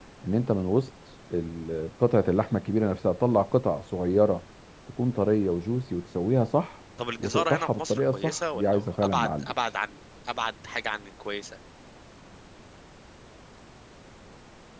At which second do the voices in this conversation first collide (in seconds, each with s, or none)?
7.0 s